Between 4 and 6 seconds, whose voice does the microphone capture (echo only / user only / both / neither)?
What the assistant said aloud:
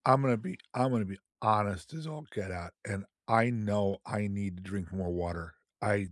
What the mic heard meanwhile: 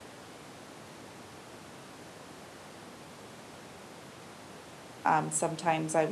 user only